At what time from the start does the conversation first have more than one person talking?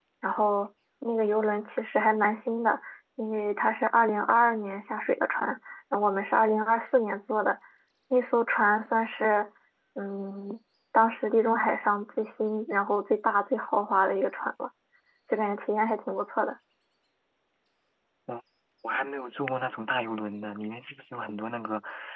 none

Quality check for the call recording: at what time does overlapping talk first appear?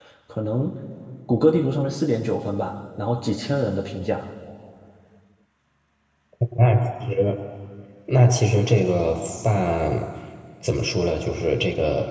none

